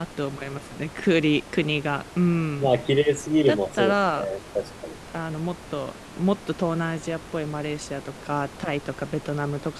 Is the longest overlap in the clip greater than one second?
No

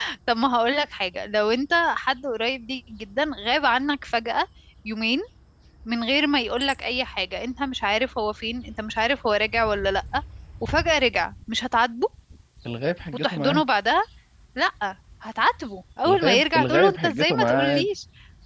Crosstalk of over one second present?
Yes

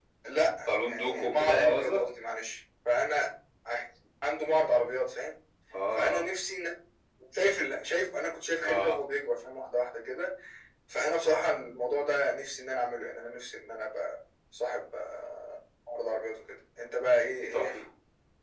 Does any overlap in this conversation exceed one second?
Yes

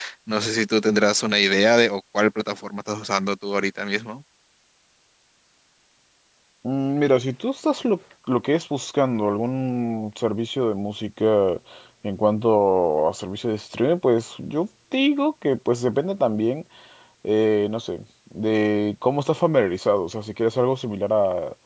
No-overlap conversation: Yes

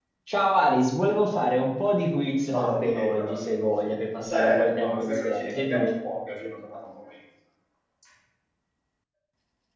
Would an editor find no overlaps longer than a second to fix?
No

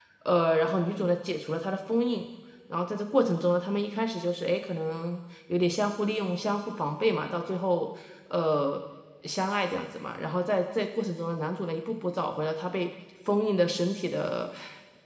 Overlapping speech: No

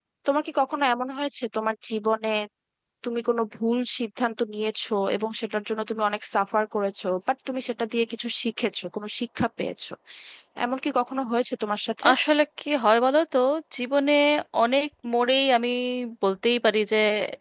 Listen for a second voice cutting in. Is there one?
No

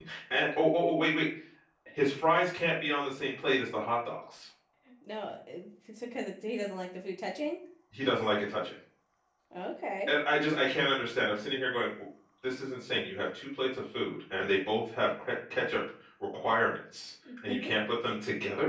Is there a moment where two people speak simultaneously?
No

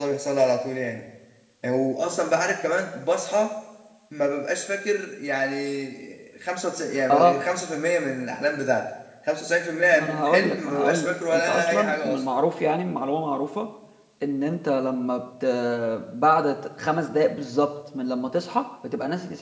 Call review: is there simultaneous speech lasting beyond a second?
Yes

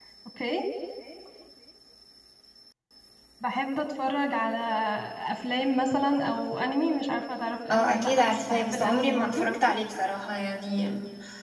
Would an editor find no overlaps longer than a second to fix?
No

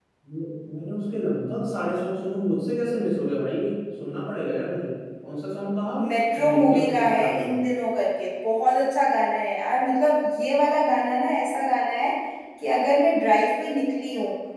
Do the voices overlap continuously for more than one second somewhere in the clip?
Yes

